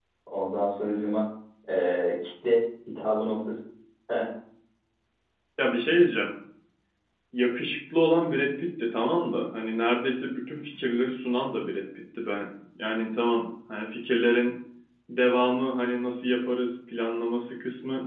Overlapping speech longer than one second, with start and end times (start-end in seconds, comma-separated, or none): none